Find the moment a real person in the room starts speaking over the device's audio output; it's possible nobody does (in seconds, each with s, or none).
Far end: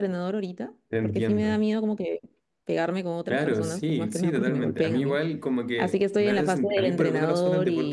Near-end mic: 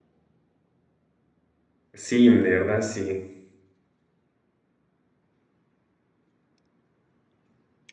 1.9 s